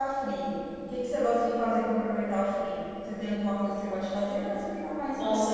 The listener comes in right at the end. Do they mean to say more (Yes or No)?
Yes